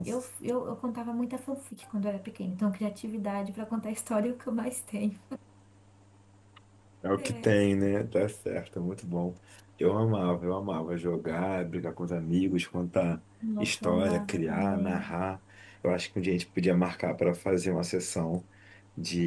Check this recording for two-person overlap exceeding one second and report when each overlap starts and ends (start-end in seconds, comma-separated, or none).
13.6-15.1